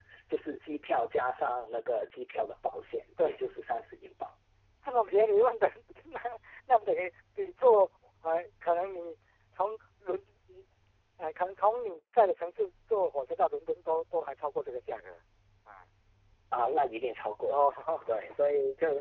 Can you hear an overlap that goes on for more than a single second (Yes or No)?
No